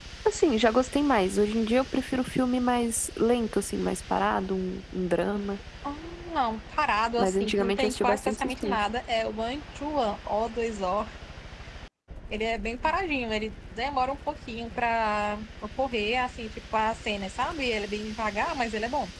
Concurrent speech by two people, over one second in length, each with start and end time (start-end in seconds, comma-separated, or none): 7.2-8.8